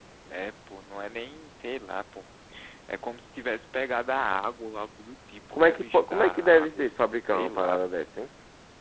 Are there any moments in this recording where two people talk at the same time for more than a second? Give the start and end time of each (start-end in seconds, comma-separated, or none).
5.5-6.8